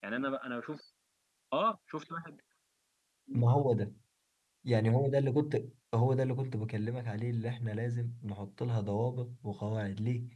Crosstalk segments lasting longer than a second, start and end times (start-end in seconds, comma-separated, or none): none